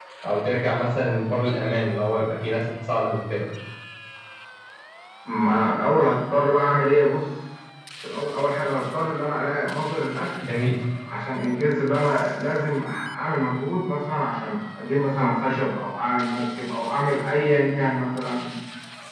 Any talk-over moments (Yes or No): No